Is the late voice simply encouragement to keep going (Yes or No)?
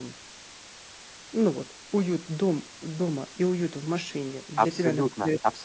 No